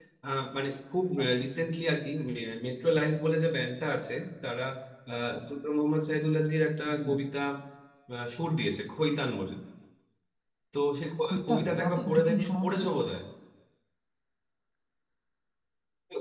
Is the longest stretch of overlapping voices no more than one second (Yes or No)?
No